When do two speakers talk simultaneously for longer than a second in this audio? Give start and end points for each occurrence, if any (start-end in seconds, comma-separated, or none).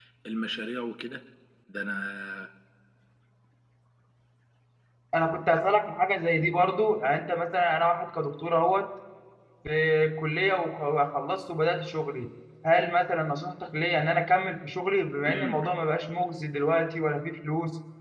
none